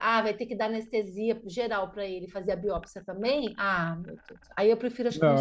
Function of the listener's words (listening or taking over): taking over